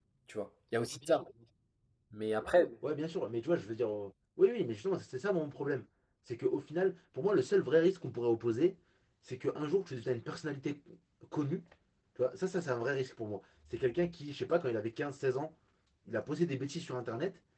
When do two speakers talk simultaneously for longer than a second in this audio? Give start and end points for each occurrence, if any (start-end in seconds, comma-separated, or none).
none